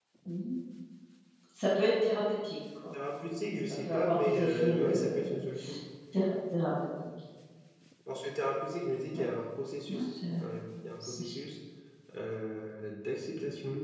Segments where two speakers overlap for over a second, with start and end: 3.8-5.3

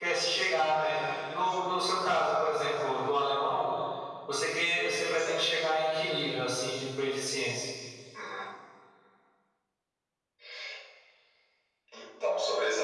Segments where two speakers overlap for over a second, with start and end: none

